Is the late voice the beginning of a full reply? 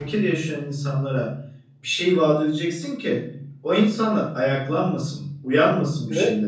No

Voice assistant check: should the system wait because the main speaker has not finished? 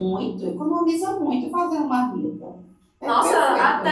No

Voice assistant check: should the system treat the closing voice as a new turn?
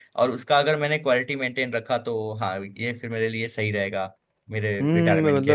Yes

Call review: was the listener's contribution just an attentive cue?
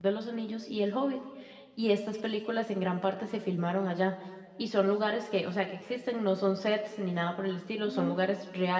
Yes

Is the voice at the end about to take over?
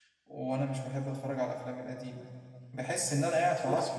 No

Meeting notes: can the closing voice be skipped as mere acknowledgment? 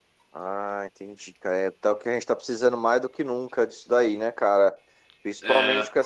Yes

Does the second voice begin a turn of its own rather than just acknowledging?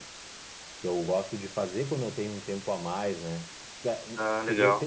No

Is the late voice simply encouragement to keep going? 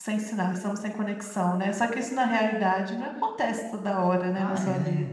No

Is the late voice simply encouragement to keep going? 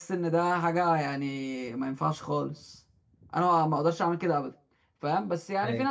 Yes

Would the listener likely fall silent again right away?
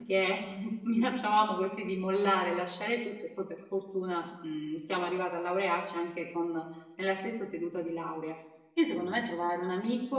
Yes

